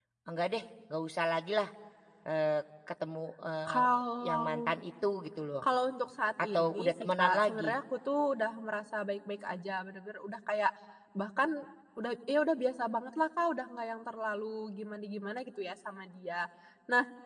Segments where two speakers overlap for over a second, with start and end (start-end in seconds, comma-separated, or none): 6.5-7.7